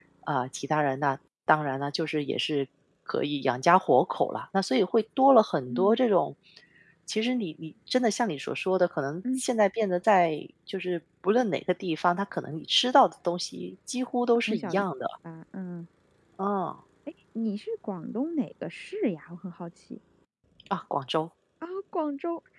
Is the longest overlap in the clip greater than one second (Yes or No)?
No